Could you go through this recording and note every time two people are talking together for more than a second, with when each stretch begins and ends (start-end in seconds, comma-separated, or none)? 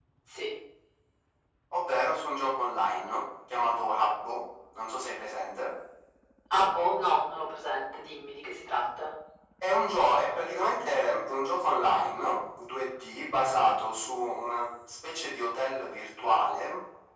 none